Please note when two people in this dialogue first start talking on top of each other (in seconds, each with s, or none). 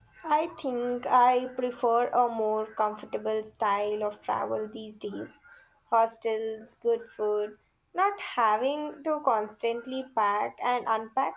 none